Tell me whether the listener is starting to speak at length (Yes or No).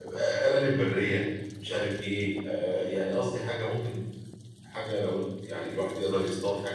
No